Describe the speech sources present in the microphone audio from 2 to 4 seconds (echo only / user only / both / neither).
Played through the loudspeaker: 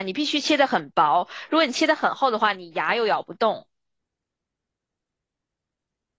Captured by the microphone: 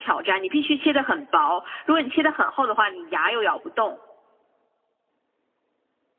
echo only